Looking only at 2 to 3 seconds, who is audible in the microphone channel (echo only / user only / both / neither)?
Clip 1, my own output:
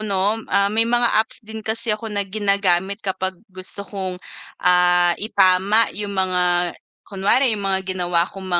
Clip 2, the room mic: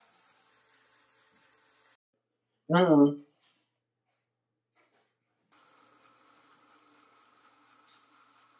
user only